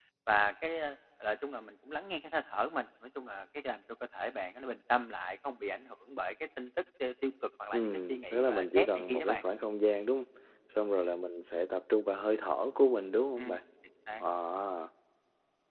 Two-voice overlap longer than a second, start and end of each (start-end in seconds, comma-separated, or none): 7.7-9.4